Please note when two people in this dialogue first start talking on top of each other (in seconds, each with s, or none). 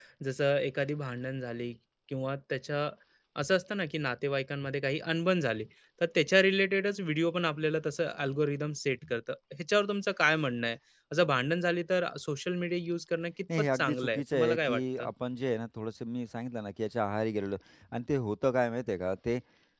13.5 s